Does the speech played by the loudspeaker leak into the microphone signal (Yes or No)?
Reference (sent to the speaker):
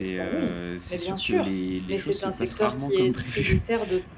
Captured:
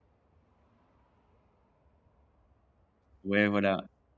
No